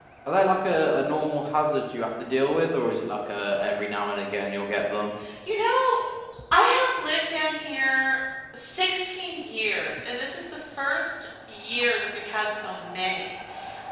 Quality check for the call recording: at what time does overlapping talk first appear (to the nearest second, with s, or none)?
none